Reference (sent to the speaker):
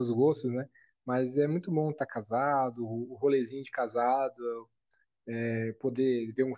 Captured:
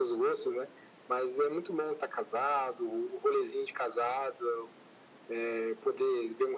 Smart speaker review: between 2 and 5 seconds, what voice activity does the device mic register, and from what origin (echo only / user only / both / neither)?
echo only